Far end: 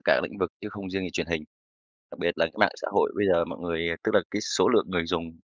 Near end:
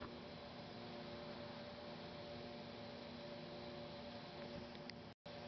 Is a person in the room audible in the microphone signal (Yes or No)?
No